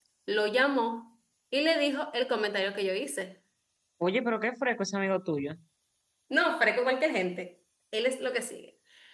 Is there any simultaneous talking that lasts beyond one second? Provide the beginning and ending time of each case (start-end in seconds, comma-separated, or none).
none